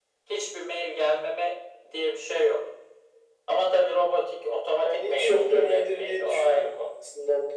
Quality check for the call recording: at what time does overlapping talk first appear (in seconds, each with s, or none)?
4.8 s